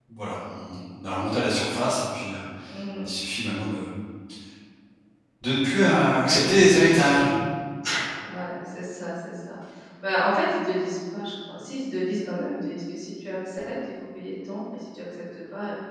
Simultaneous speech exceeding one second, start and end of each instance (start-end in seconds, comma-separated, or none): none